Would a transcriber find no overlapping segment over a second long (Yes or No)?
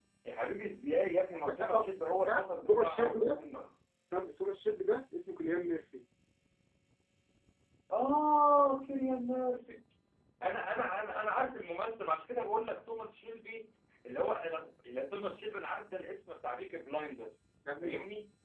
No